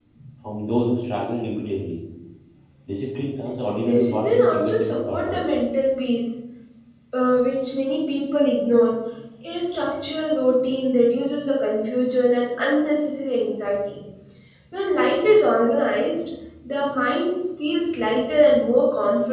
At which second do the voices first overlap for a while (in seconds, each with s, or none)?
3.8 s